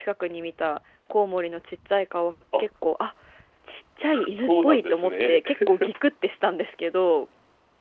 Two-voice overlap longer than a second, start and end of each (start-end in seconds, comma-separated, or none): 4.1-5.4